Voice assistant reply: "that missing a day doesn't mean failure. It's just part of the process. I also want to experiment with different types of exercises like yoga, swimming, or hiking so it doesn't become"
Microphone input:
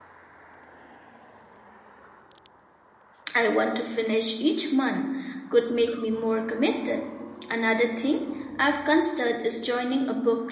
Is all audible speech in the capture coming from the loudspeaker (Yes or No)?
No